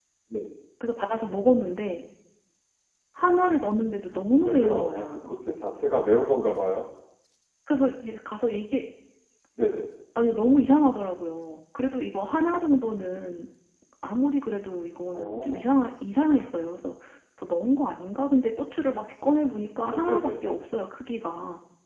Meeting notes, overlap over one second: present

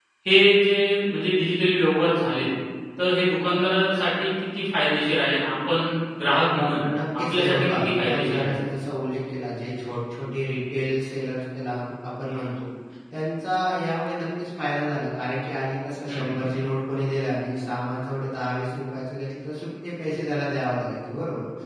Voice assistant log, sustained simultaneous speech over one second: present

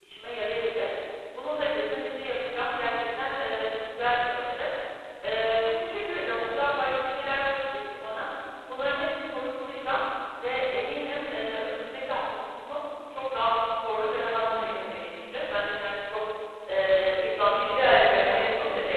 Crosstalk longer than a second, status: present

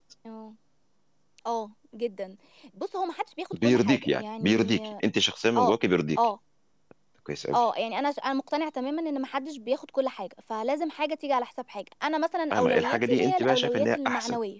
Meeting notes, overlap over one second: present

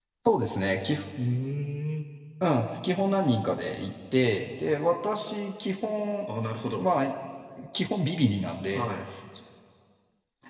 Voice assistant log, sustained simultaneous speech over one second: none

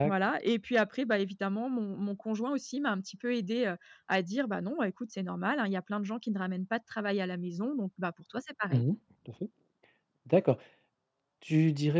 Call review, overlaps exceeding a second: none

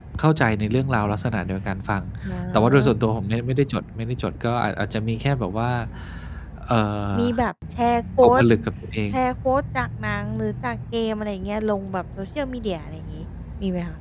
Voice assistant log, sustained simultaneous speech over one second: none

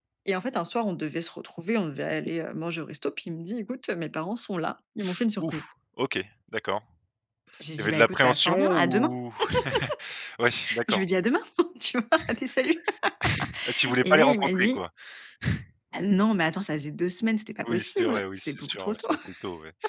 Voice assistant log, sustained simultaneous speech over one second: present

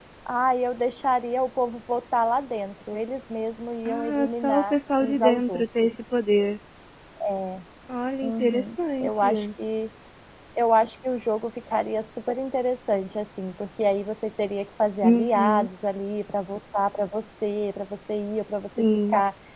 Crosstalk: present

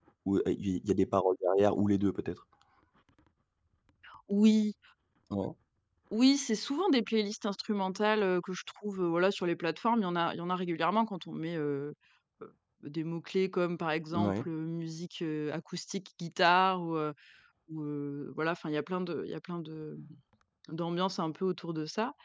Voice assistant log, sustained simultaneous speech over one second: none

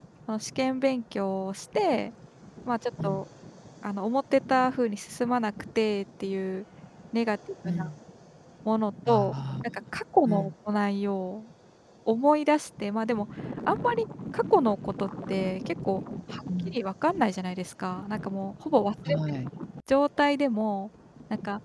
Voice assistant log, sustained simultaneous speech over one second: none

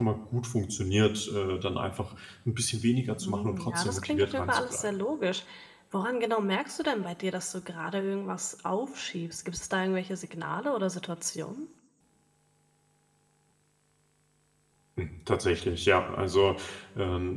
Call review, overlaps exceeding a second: present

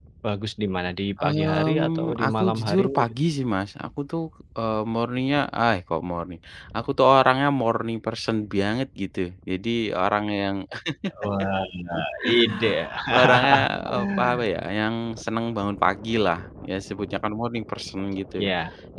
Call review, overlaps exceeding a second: present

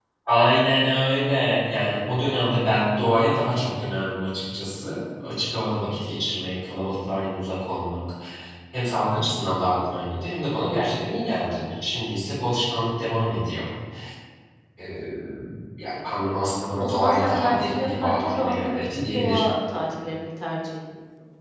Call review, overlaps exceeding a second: present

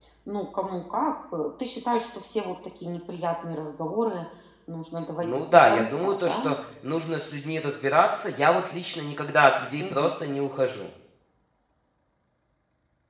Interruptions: present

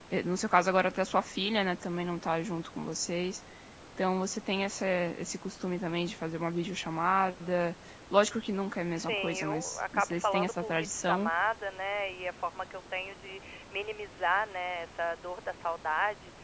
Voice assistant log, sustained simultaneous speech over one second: present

